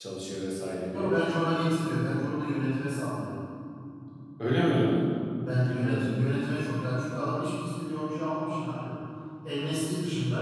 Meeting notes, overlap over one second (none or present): none